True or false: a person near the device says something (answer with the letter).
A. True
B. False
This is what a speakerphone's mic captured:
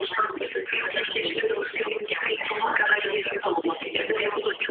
B